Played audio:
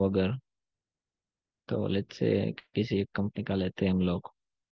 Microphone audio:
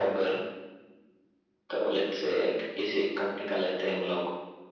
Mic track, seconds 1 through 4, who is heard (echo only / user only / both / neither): echo only